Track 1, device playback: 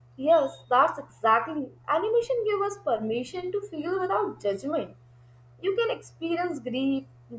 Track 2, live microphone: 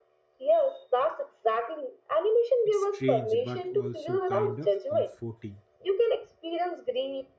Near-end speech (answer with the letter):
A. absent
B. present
B